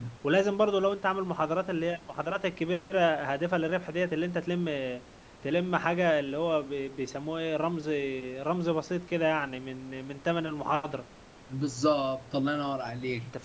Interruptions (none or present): none